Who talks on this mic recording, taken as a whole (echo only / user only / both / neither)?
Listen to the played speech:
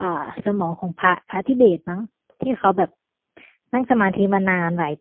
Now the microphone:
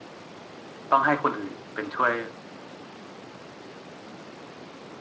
user only